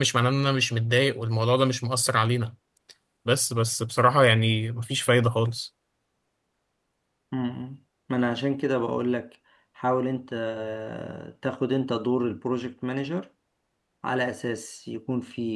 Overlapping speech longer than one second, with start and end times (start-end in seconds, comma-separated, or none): none